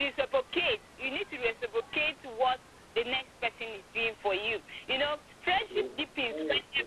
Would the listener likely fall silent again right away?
Yes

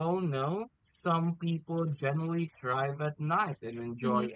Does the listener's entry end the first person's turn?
No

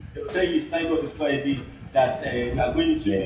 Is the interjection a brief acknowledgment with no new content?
Yes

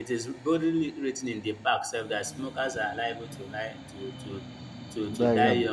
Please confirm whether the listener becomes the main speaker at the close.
No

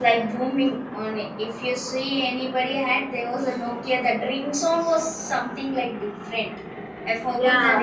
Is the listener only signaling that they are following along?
No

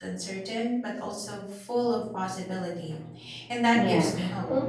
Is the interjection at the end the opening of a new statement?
Yes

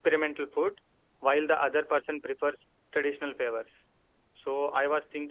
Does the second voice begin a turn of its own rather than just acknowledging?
No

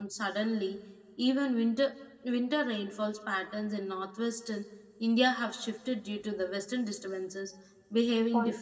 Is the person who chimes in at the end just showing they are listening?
No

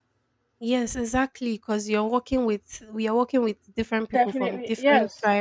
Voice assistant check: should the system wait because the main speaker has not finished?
No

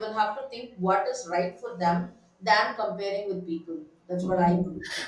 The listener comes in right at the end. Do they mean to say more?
Yes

